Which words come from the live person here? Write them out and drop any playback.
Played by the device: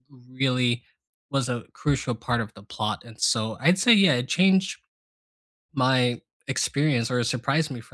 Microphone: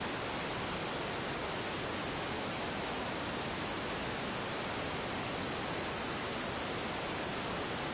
none

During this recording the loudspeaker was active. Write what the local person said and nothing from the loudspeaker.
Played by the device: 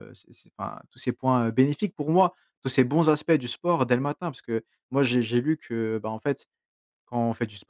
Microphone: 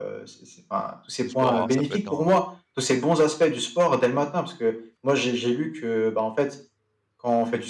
le sport, alors ça peut être dans

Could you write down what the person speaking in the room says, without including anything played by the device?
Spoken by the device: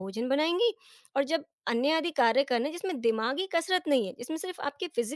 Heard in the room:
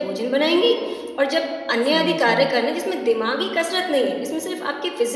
समझी।

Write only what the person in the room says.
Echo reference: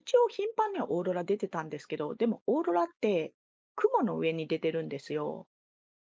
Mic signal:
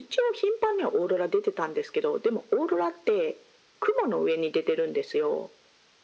none

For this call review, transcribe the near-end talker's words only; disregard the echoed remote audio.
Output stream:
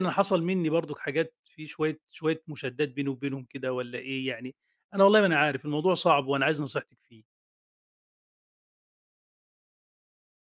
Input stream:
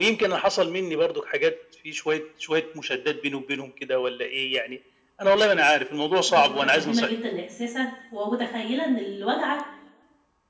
أنا متفهمة جدًا إحساسك، ومتخيلة إن اللي واجعك

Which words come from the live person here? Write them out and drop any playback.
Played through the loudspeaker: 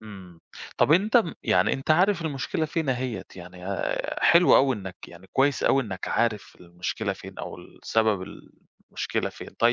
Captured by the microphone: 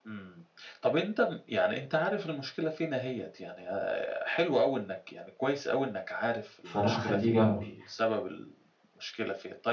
فلأ أخلّيه جنبي،

